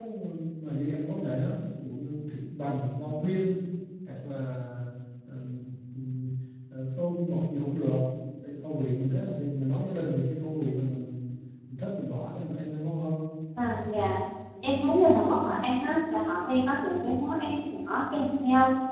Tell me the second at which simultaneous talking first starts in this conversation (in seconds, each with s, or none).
none